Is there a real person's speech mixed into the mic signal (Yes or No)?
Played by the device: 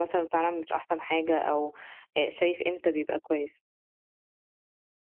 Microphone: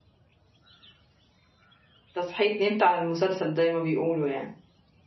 Yes